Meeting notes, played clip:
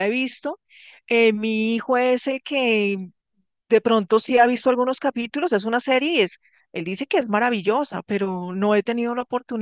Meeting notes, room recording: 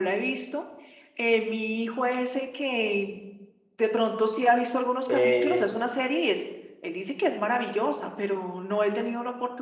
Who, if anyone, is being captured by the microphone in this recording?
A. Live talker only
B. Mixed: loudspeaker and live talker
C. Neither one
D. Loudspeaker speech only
B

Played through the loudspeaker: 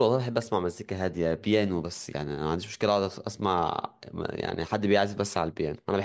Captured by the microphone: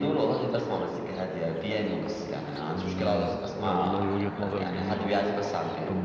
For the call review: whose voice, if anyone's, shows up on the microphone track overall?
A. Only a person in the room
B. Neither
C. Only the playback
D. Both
D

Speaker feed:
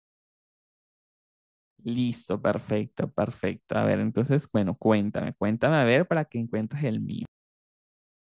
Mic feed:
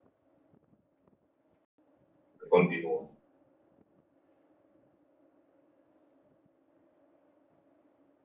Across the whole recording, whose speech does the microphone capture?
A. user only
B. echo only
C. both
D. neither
A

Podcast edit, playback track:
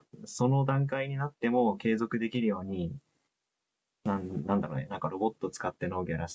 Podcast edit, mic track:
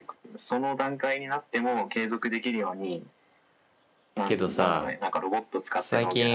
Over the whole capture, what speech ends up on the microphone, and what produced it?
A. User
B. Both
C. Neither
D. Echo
B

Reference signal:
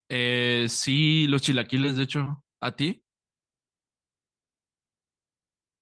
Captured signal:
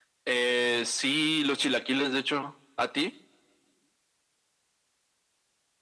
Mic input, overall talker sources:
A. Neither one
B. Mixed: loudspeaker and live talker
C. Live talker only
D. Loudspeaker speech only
D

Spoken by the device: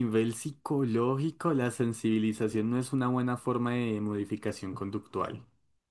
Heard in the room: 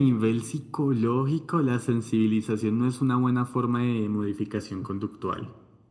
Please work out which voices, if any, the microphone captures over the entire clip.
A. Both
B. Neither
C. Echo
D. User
C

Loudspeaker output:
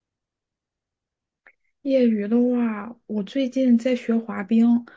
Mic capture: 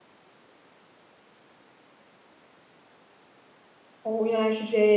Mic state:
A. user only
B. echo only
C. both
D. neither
A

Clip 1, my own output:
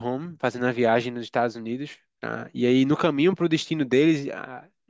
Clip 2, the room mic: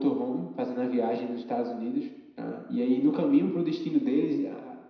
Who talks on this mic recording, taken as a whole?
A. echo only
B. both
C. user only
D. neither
A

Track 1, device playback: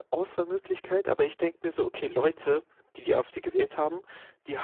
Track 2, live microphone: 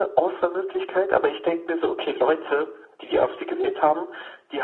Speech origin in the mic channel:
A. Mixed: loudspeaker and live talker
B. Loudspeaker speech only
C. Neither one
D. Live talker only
B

